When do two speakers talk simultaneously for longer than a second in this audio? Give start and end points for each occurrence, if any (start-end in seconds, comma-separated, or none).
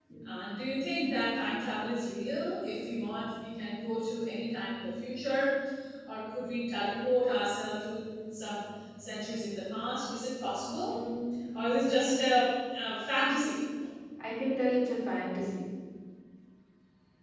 none